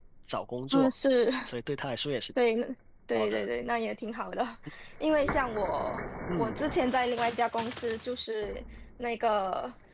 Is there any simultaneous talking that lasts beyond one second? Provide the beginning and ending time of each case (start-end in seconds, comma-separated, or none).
none